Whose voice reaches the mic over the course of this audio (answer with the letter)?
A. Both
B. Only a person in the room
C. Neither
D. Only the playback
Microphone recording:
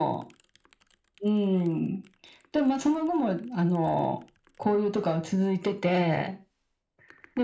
D